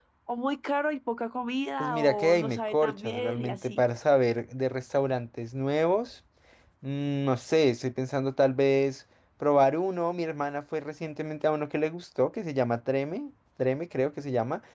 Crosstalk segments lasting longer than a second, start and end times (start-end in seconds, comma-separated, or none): 1.8-3.8